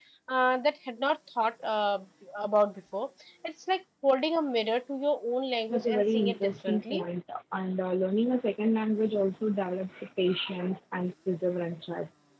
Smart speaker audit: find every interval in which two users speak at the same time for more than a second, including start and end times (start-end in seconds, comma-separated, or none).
5.7-7.0